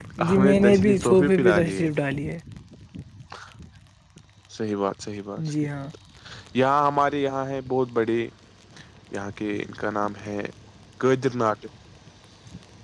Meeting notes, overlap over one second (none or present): present